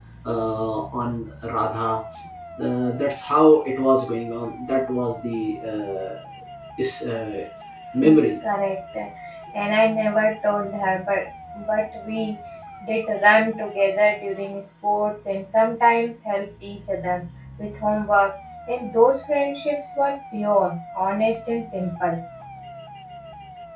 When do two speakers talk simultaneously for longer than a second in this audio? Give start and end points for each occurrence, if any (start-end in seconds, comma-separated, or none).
none